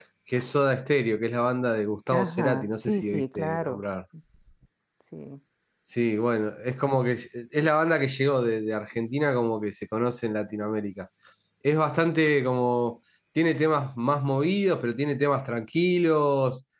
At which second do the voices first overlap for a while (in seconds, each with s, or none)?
2.1 s